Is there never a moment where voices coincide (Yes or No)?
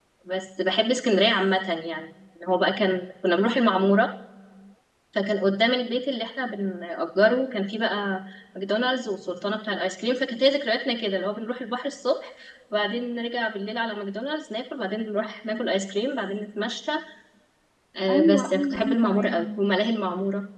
No